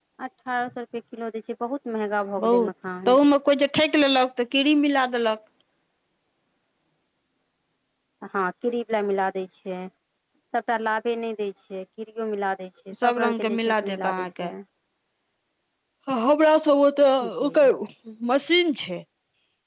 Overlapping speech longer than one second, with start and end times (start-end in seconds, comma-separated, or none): 13.0-14.3